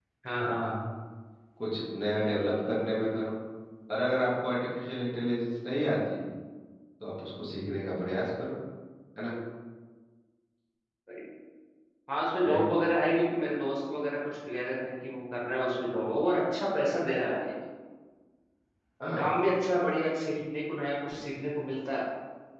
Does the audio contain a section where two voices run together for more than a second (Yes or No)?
No